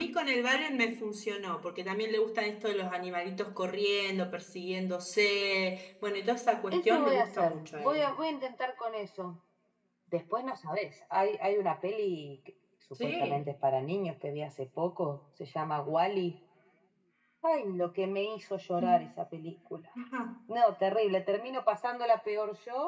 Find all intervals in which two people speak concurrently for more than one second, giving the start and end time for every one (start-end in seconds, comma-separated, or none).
6.7-8.1